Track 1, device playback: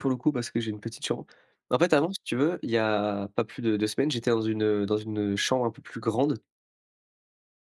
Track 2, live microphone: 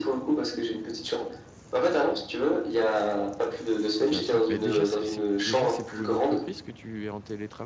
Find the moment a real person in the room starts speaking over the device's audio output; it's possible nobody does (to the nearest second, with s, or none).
4 s